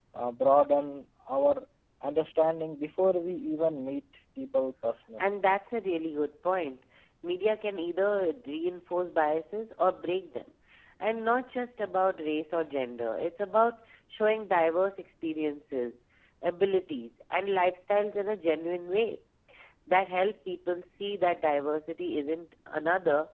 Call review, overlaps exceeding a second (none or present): none